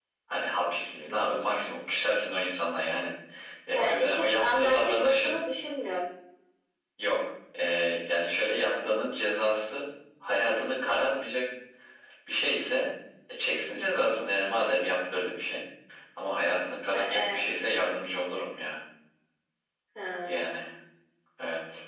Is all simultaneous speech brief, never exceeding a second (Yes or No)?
No